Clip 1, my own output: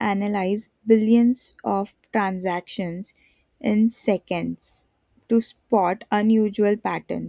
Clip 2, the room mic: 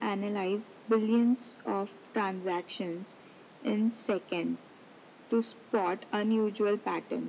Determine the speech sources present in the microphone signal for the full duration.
echo only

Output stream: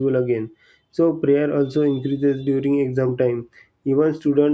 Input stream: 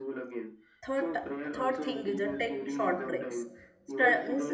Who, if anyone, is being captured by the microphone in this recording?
both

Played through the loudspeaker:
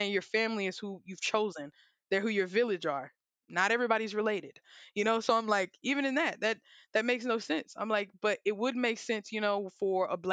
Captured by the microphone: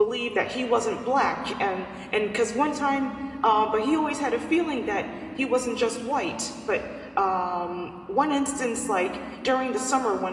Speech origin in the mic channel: user only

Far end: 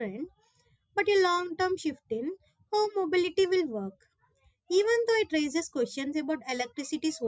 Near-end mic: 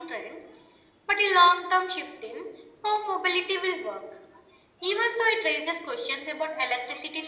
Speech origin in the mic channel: echo only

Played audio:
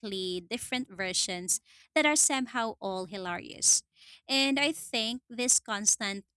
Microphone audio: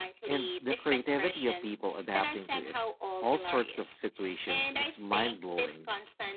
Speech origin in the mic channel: both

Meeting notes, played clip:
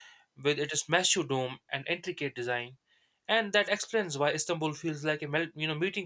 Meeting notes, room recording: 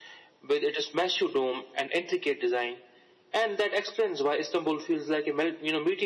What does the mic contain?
echo only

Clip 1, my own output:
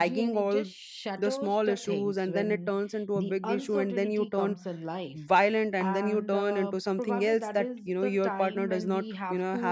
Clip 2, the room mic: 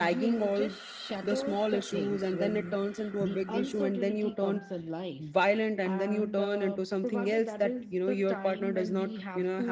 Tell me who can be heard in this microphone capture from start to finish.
echo only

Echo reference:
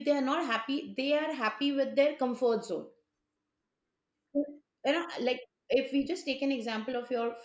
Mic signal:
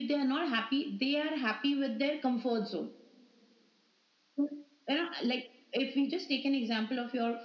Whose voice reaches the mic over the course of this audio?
echo only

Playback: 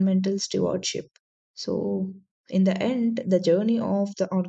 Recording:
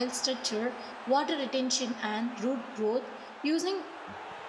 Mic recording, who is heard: user only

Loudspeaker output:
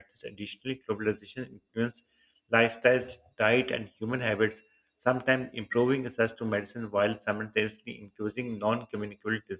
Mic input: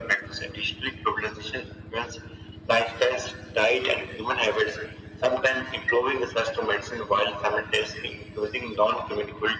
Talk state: echo only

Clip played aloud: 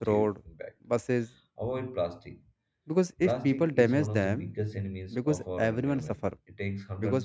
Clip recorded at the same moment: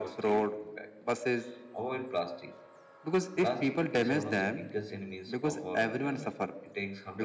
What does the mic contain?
echo only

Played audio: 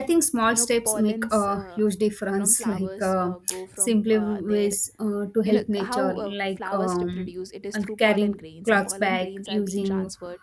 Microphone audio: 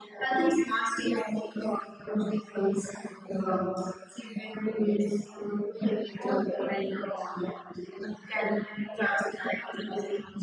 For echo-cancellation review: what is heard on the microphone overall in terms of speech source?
echo only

